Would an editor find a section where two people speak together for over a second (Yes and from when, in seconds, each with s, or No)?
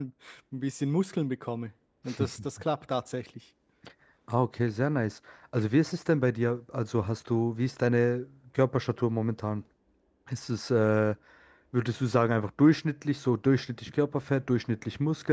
No